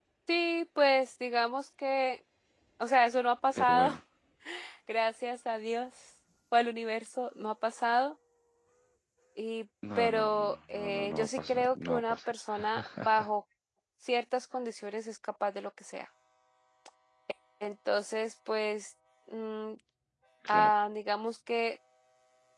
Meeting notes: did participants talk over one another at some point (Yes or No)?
Yes